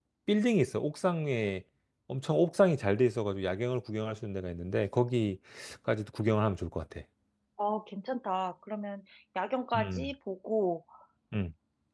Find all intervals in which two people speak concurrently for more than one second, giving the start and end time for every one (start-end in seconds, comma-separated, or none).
none